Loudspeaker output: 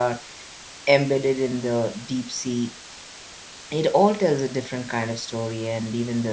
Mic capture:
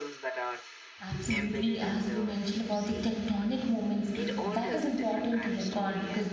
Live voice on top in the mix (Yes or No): Yes